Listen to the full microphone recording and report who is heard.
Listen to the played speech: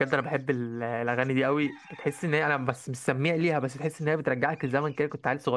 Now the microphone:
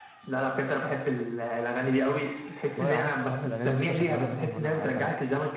both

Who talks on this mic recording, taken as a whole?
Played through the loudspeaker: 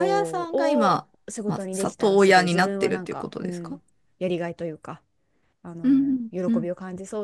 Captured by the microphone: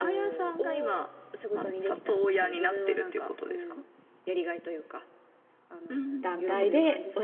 both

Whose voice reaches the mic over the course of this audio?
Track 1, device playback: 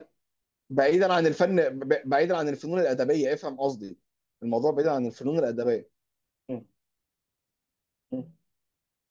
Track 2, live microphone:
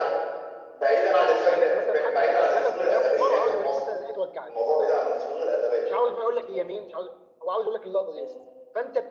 both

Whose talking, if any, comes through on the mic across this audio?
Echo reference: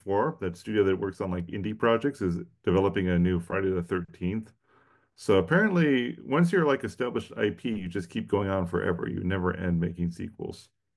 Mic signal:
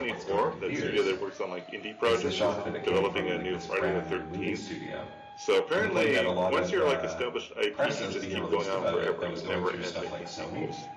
both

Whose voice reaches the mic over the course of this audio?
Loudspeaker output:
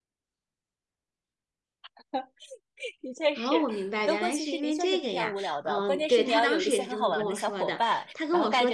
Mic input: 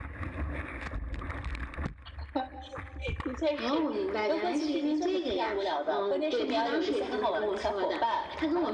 echo only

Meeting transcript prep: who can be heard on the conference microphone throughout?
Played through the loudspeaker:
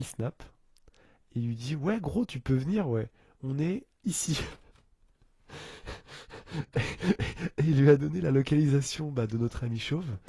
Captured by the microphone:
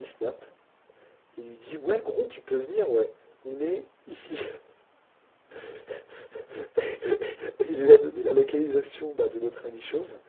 echo only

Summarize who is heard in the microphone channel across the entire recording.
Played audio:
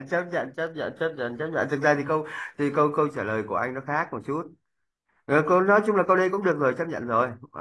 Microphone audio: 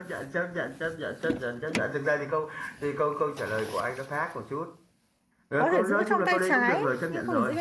both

